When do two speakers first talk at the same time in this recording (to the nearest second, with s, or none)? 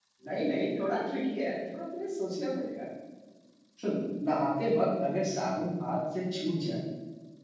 none